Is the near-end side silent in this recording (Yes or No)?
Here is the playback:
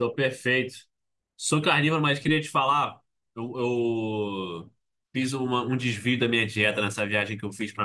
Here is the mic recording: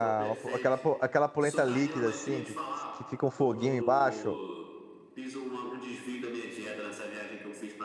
No